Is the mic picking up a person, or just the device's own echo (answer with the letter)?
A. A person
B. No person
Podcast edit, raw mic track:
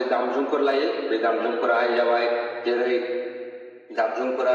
B